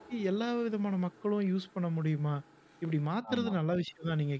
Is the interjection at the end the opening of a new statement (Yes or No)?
No